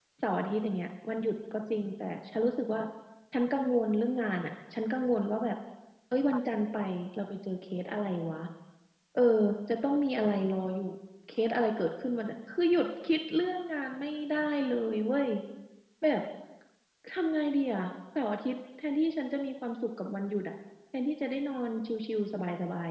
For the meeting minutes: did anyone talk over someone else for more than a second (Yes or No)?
No